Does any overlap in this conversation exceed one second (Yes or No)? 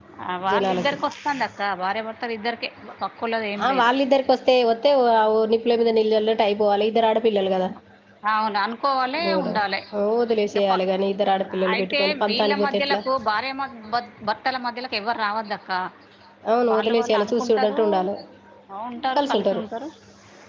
Yes